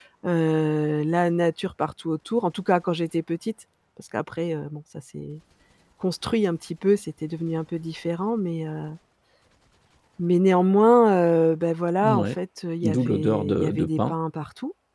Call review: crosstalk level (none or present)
present